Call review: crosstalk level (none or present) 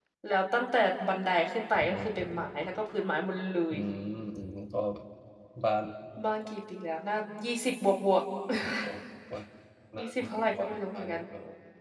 present